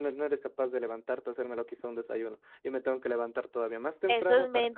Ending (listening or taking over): taking over